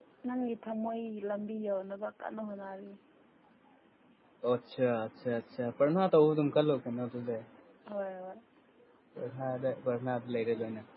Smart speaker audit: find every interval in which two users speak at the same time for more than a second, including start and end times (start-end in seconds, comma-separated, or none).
none